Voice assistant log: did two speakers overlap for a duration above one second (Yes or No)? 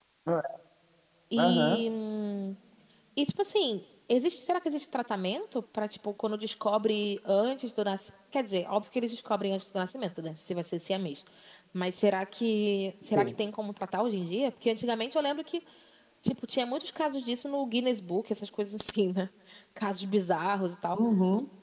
No